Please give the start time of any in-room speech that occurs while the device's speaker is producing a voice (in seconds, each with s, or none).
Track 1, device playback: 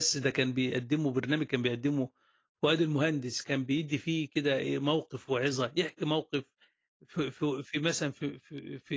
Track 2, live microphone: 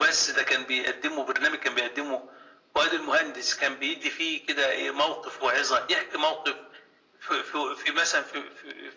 none